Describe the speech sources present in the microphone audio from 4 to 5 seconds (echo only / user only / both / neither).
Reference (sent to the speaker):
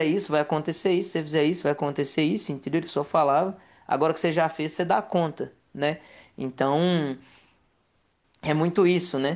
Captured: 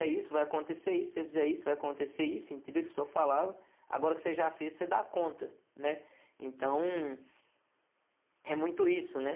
echo only